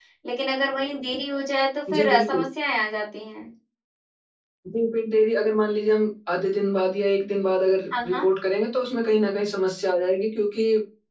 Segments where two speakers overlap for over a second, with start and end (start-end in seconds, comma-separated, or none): none